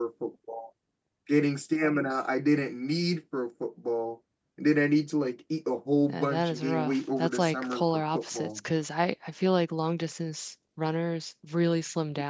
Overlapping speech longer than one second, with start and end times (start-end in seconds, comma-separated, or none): 6.1-8.6